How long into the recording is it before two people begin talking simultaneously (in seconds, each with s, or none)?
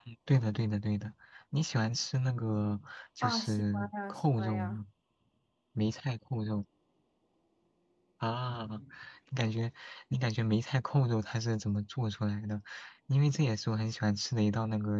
3.2 s